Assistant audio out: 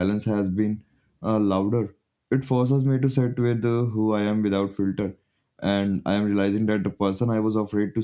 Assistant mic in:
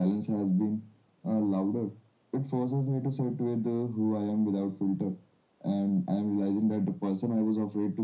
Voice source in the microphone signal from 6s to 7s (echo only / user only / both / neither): echo only